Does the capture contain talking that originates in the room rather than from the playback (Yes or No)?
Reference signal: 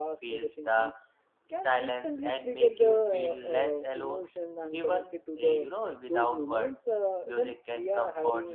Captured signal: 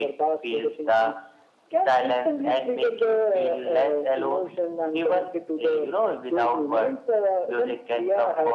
No